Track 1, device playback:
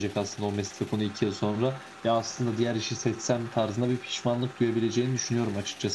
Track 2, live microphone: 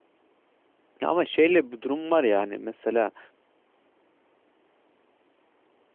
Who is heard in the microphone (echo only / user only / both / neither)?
user only